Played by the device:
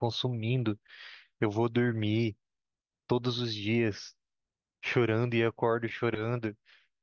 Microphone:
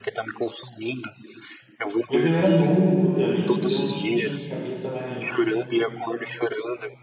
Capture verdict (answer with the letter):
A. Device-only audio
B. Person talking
B